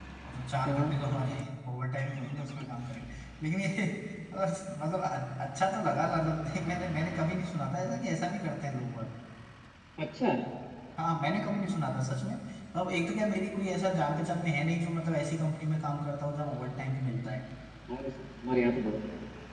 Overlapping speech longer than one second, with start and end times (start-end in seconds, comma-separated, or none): none